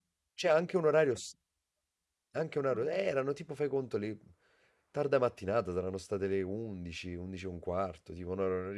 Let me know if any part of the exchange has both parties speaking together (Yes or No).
No